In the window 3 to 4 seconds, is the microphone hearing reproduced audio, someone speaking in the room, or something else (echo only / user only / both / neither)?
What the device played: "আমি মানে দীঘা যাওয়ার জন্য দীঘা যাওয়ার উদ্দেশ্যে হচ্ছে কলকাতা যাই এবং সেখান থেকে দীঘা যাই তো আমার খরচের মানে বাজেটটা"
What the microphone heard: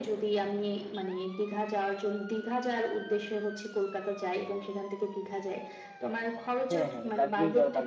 echo only